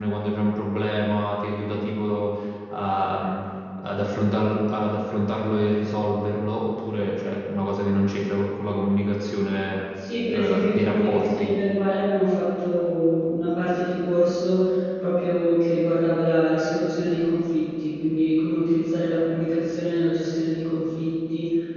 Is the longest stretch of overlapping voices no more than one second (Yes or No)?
No